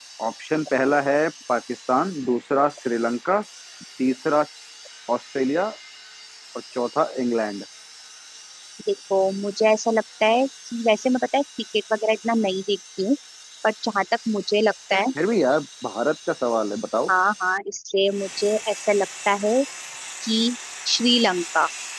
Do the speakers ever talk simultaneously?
No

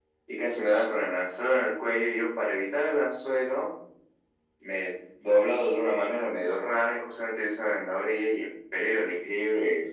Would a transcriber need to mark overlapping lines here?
No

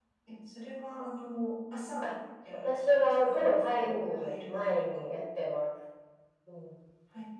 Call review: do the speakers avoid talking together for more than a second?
No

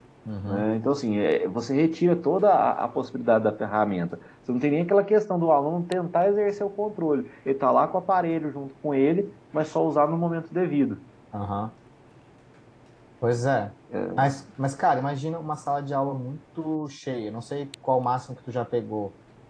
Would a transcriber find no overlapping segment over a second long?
Yes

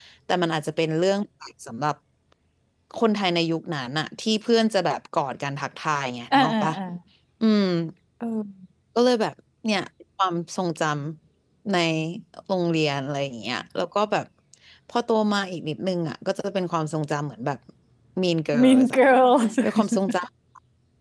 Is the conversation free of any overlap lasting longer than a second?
Yes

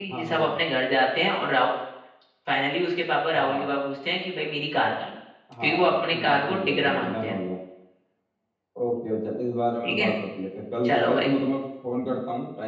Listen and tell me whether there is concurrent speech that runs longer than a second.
Yes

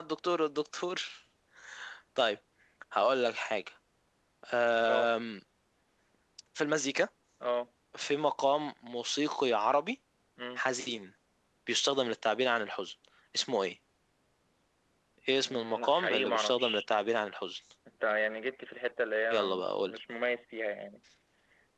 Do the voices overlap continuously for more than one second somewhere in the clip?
Yes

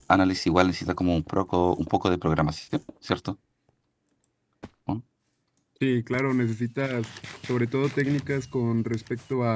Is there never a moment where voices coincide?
Yes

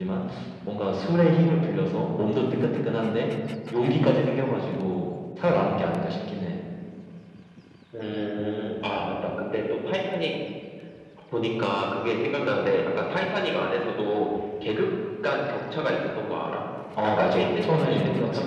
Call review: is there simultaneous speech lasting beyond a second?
Yes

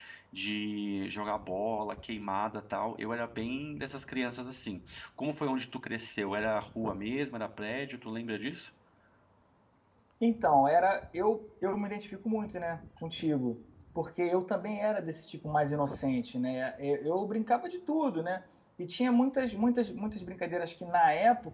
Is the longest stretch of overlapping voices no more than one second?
Yes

